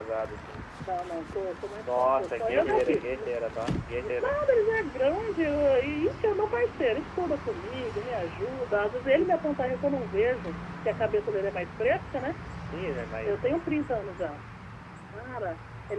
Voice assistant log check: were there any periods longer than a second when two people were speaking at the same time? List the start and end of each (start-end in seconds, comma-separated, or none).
1.8-3.1